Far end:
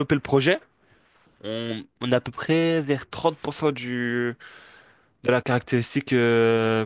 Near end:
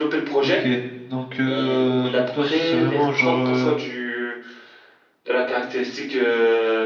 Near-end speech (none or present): present